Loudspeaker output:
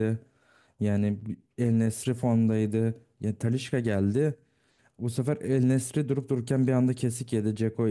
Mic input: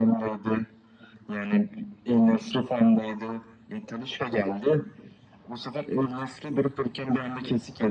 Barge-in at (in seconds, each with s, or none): none